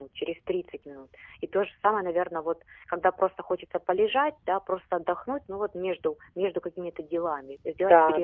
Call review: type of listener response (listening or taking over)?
taking over